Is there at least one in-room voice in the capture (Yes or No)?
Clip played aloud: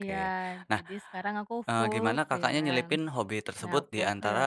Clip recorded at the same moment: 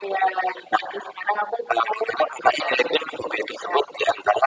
No